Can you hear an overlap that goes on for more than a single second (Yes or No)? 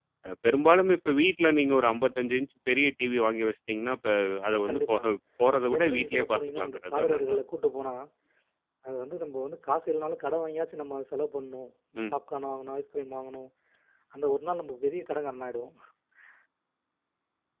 Yes